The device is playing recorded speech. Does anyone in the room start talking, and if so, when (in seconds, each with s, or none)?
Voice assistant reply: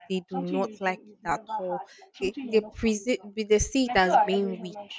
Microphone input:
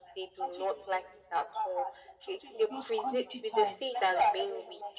2.7 s